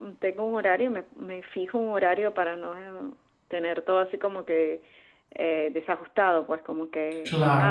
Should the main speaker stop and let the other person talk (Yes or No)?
No